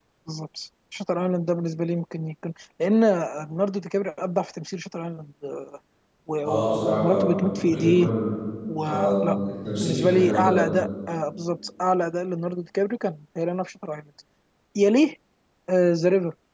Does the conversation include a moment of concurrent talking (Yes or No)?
Yes